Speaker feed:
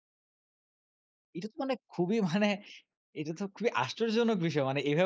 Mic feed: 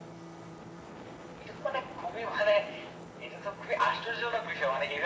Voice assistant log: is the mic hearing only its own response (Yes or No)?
Yes